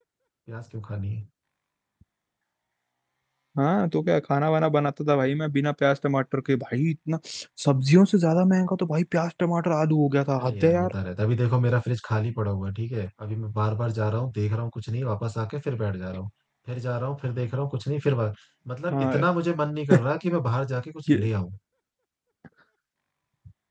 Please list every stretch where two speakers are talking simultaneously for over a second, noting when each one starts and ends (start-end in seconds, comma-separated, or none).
none